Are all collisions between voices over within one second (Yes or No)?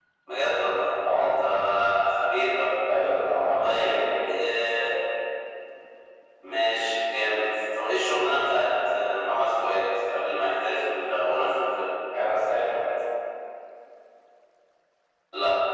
Yes